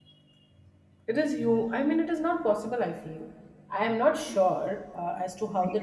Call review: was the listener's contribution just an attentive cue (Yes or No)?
No